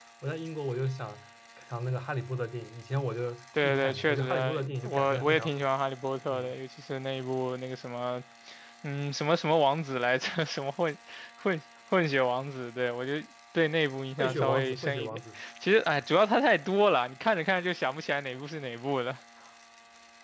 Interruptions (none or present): present